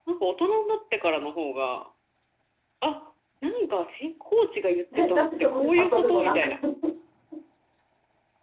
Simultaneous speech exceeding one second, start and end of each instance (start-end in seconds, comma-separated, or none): 5.0-6.5